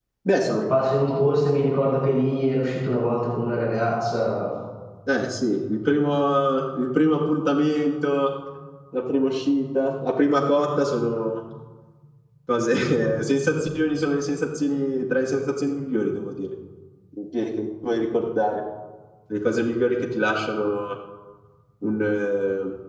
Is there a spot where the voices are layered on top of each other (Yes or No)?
No